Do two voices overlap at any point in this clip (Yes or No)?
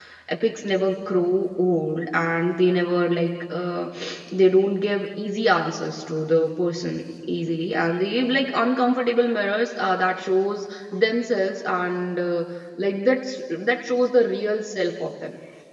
No